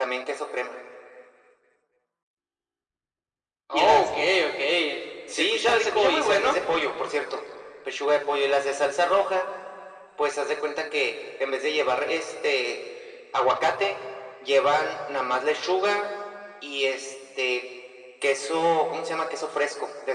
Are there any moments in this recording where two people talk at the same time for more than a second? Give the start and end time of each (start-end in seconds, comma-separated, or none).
5.3-6.5